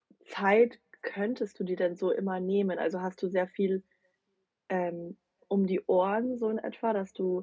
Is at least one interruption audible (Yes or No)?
No